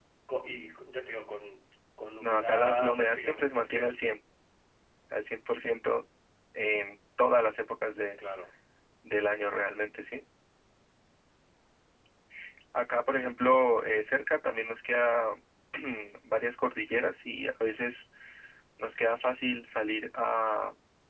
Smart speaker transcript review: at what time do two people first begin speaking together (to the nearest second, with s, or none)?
2 s